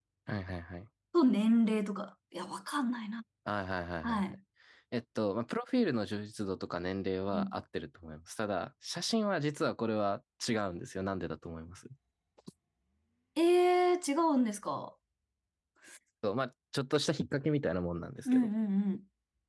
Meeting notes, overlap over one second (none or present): none